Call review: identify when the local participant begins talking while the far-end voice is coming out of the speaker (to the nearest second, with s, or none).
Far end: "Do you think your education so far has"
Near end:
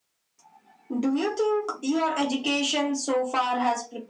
none